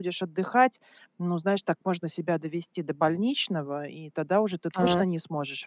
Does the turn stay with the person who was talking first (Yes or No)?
Yes